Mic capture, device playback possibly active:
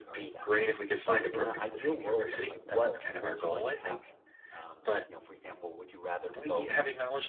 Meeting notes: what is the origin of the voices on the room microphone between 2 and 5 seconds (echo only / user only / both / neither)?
both